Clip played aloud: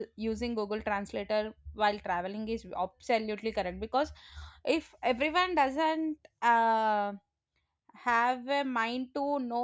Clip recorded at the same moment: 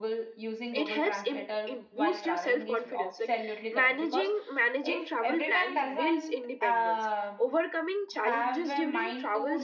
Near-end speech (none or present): present